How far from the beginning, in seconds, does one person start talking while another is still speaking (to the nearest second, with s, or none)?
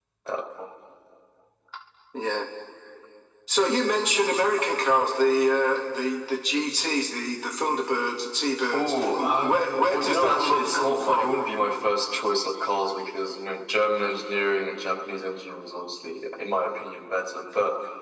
9 s